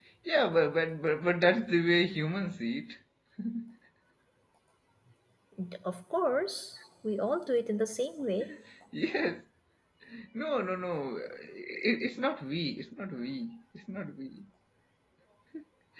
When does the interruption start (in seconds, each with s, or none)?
none